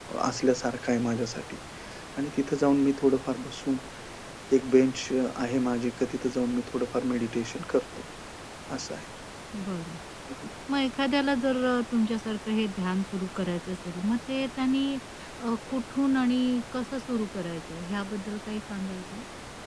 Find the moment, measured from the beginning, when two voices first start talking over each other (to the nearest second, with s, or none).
none